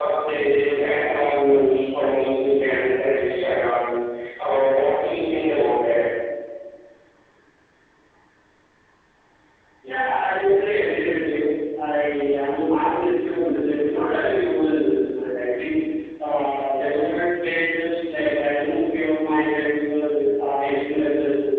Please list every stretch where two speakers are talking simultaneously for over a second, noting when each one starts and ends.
none

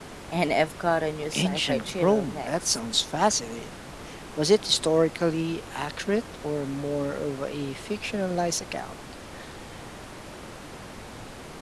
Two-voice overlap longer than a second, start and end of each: 1.3-2.8

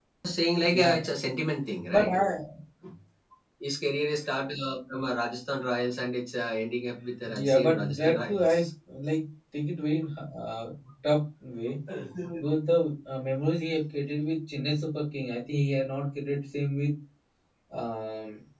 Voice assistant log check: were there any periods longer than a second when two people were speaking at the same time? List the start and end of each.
7.2-8.7

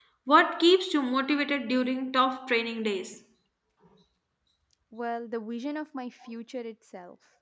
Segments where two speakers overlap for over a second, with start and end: none

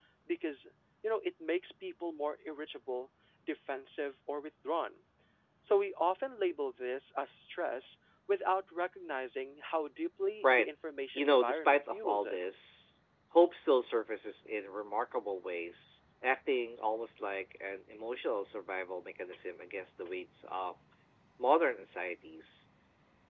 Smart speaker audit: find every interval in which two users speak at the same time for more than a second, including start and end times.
11.1-12.4

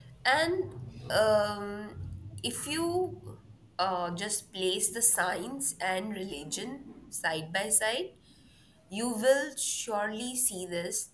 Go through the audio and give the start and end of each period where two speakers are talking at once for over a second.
none

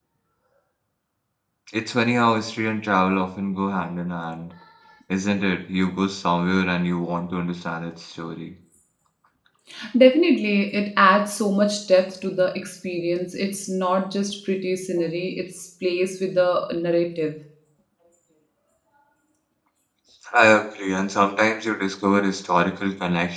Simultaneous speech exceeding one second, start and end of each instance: none

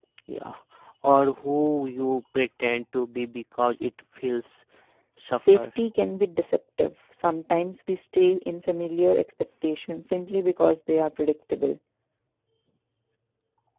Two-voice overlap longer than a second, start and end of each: none

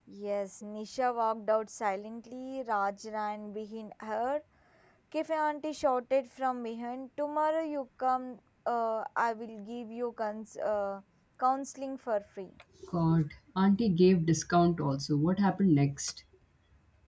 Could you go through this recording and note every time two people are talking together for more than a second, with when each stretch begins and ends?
none

